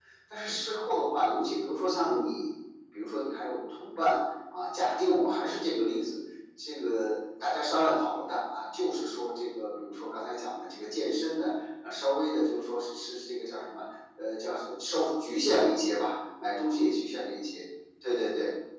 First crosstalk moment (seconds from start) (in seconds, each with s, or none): none